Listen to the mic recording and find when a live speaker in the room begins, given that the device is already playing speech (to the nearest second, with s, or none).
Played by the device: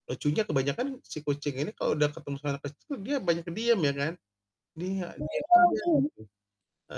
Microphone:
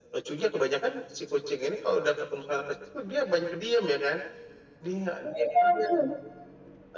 none